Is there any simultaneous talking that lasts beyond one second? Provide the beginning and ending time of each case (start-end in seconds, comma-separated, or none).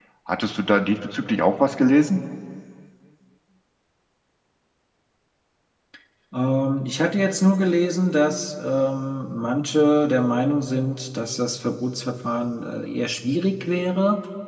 none